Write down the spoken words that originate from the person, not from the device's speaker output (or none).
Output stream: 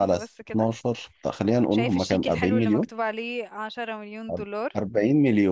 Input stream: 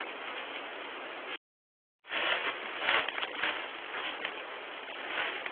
none